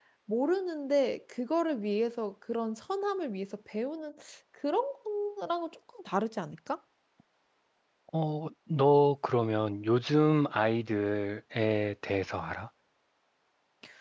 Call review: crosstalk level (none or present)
none